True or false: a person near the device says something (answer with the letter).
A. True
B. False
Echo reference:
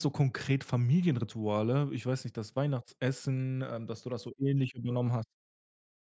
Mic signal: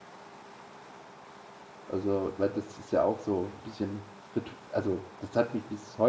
A